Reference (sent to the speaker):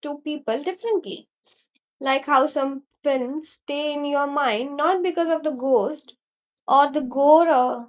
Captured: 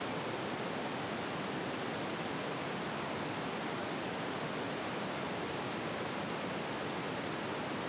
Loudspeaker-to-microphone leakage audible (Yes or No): No